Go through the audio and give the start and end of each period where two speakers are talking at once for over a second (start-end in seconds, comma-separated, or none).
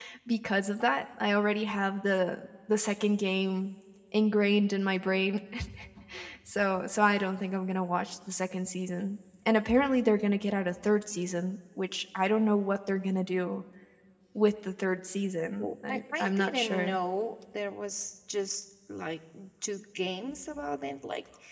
15.6-17.0